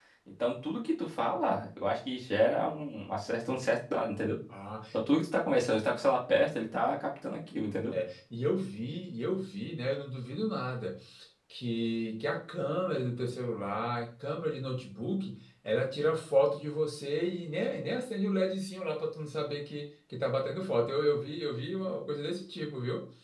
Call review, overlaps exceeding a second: none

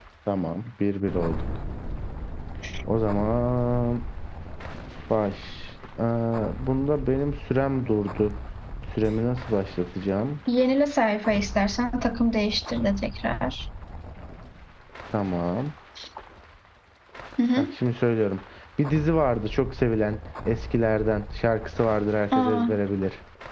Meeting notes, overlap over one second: none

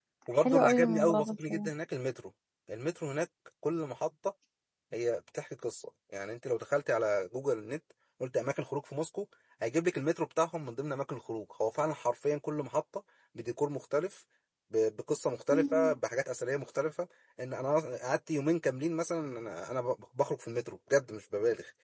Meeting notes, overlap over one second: present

